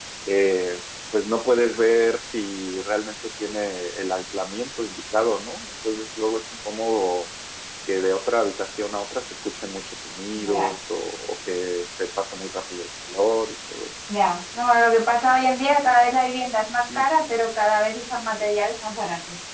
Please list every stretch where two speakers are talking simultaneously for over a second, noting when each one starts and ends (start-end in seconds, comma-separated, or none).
none